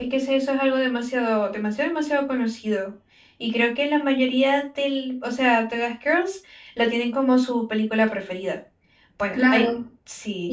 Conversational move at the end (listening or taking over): taking over